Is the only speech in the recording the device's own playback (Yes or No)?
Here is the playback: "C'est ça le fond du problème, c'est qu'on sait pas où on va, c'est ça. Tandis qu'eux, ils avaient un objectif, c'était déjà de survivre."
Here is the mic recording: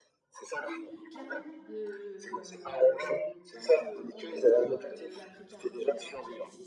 No